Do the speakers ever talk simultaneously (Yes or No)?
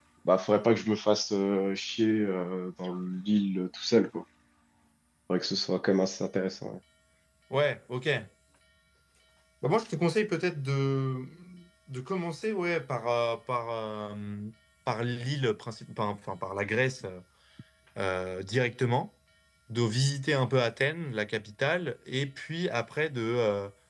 No